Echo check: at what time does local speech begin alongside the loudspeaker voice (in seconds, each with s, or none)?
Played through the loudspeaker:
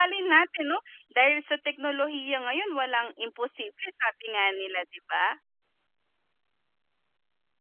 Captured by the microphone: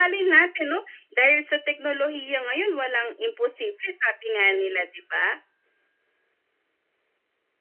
none